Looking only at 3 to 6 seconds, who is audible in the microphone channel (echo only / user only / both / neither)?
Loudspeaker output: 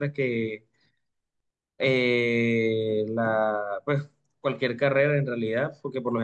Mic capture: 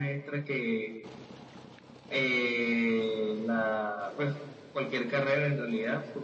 echo only